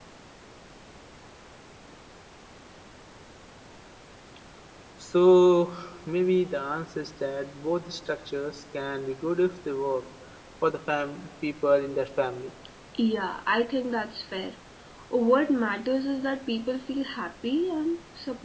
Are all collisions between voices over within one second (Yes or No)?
Yes